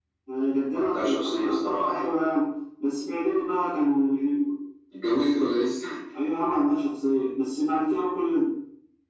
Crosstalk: present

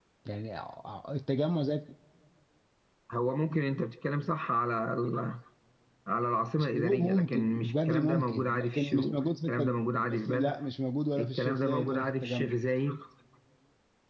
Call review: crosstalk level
present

